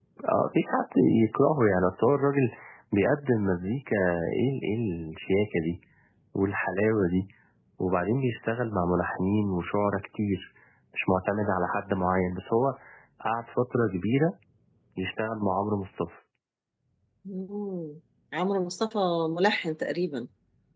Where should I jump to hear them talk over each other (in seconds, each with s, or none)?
none